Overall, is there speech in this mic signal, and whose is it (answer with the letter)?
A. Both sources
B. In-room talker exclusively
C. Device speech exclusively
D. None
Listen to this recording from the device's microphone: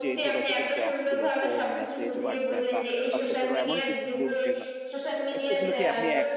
A